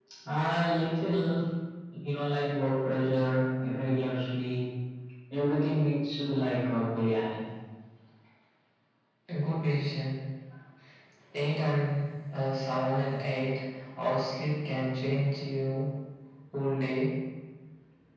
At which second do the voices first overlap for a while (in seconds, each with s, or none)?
none